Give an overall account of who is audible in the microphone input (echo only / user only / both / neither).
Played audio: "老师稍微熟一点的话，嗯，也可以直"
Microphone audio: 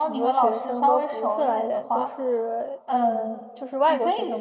both